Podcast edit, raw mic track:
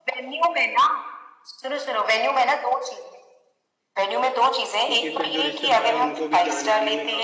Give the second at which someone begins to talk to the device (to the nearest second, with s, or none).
5 s